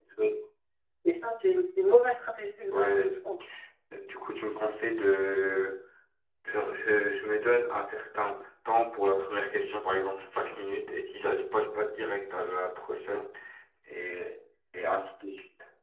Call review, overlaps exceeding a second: none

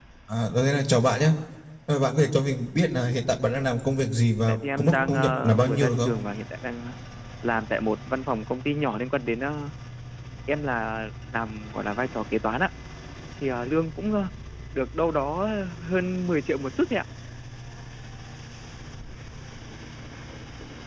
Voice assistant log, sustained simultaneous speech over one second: present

